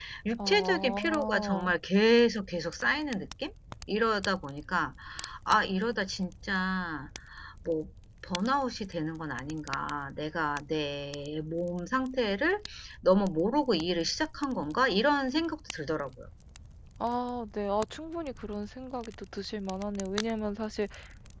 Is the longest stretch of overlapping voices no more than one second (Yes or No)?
No